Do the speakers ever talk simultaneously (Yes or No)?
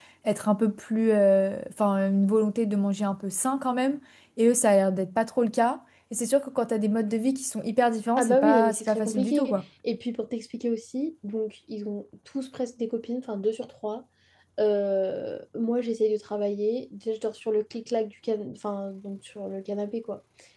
Yes